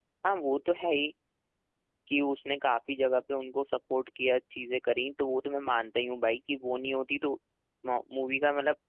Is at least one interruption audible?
No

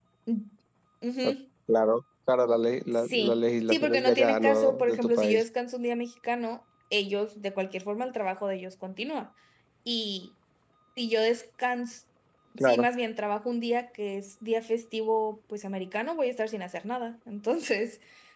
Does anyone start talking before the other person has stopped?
Yes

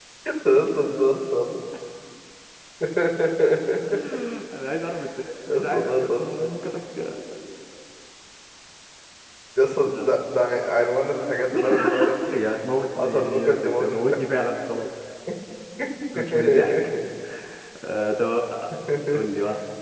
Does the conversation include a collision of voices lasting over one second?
Yes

